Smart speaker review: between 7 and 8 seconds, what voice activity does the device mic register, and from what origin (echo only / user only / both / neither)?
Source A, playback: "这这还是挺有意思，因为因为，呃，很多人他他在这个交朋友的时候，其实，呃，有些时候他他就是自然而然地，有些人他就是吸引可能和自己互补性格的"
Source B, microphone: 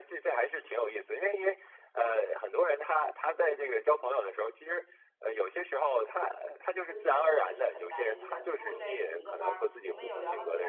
both